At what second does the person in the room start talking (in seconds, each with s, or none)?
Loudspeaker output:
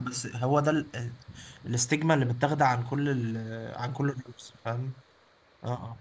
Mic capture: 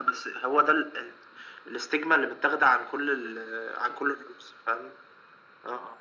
none